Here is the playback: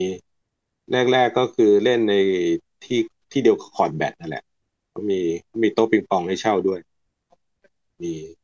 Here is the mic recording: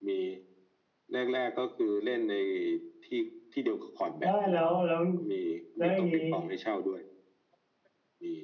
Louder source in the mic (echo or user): user